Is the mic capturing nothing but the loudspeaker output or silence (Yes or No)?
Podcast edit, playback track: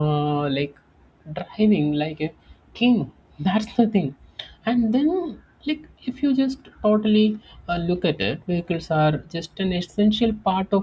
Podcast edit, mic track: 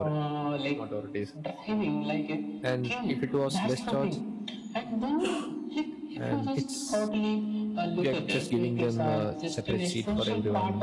No